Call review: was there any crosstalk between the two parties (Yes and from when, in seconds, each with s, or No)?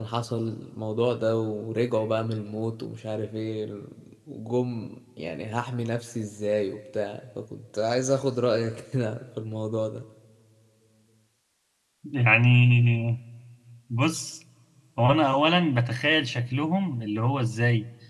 No